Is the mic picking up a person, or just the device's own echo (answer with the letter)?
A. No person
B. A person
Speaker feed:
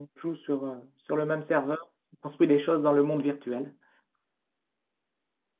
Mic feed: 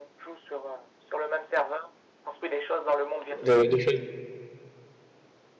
B